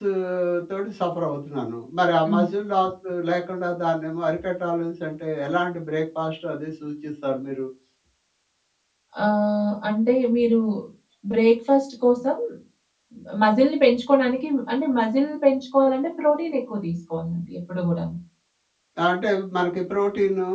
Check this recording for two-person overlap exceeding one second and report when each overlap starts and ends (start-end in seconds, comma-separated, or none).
none